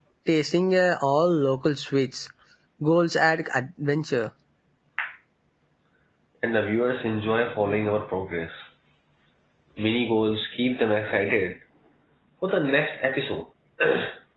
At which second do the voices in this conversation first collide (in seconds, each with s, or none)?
none